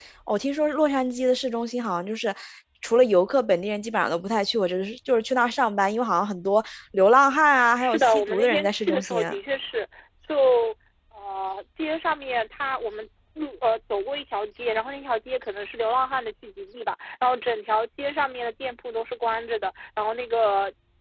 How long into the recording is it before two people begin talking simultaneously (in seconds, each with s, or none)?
7.6 s